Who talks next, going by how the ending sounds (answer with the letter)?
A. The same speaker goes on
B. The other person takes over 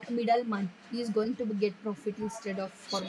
B